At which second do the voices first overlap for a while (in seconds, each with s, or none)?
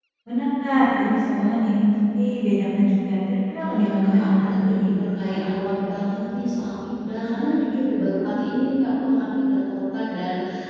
3.6 s